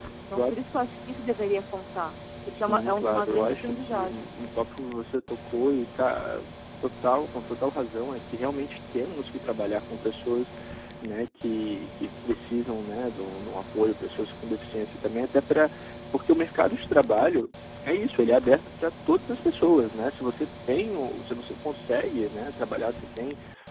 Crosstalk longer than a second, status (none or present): present